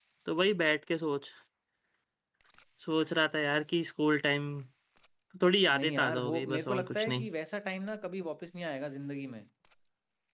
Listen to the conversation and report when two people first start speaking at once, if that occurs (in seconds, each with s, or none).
5.8 s